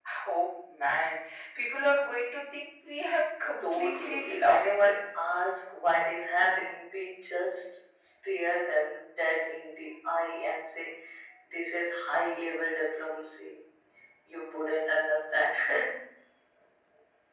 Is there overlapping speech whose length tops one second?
Yes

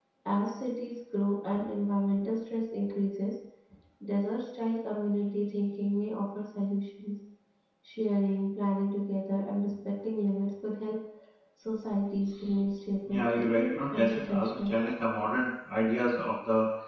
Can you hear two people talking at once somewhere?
Yes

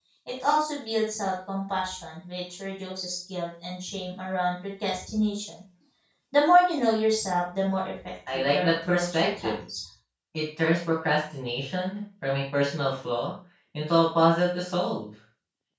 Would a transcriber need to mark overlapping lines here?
Yes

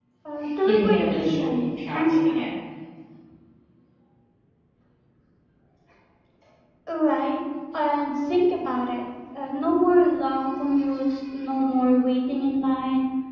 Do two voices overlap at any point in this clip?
Yes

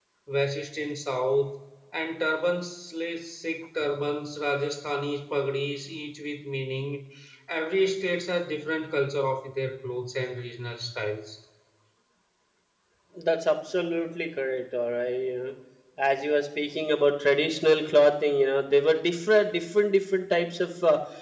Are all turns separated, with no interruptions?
Yes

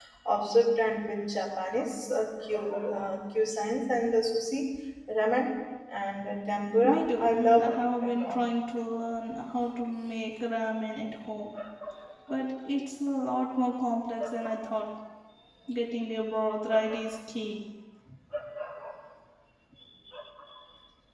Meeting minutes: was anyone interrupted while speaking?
Yes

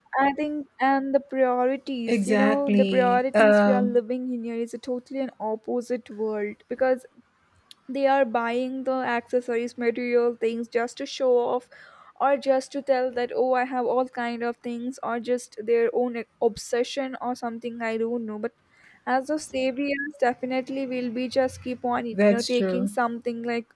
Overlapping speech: Yes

